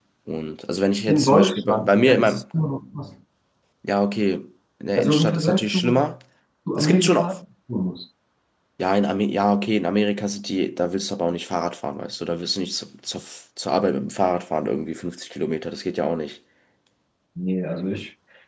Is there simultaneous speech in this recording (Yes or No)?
Yes